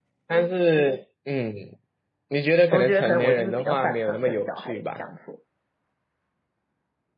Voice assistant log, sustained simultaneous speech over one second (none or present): present